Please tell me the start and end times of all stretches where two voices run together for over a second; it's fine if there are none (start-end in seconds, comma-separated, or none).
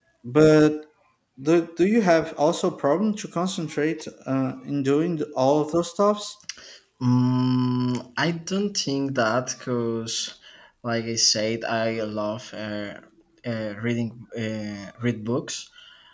none